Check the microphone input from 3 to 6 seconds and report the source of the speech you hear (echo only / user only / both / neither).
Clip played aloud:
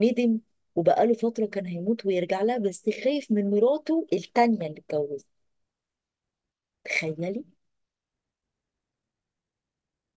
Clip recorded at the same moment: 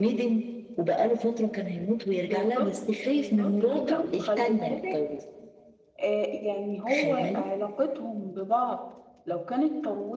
both